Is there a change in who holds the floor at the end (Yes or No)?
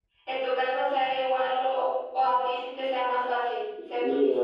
Yes